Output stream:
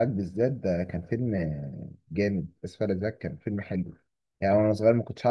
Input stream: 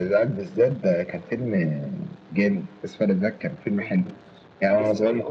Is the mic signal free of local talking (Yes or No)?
No